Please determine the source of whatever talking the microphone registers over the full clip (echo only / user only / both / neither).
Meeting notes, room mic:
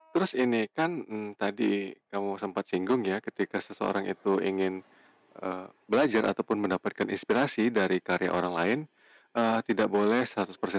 user only